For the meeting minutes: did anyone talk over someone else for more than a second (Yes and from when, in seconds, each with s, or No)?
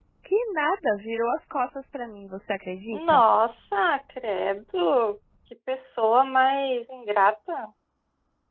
No